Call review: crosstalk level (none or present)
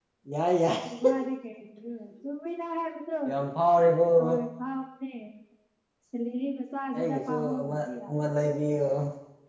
present